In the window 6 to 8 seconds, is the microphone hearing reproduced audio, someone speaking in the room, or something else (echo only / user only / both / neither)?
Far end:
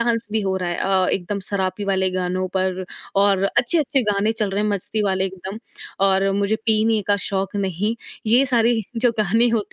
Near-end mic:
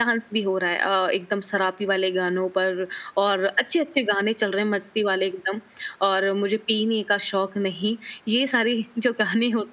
echo only